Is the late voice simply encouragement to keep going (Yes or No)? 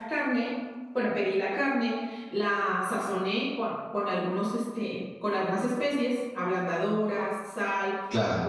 Yes